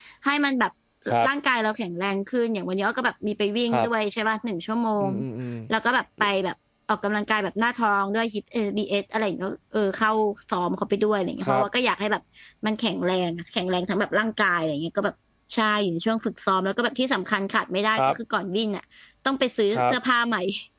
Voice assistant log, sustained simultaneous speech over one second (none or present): none